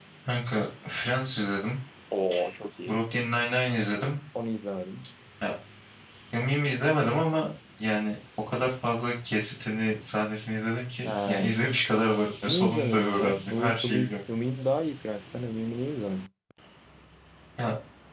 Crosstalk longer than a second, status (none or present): present